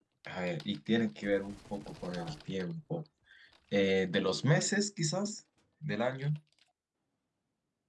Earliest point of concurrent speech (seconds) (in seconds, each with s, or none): none